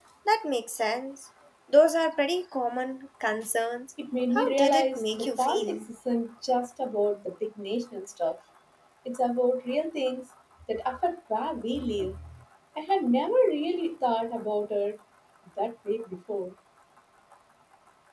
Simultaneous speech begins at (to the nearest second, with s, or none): 4 s